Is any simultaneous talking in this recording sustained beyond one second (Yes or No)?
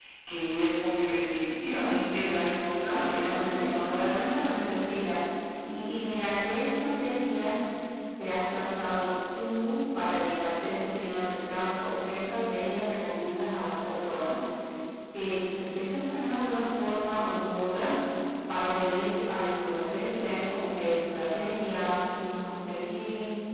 Yes